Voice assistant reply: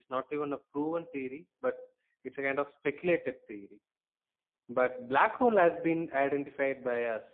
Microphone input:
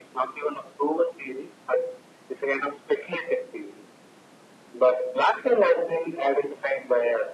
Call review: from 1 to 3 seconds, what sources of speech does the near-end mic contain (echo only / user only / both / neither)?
echo only